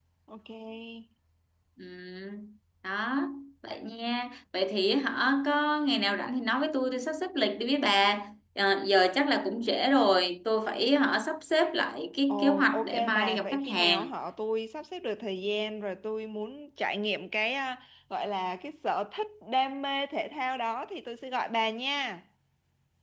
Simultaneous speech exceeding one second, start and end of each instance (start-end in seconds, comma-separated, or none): 12.3-14.1